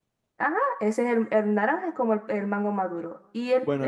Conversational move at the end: taking over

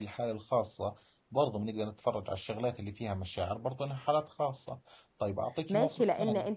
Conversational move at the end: taking over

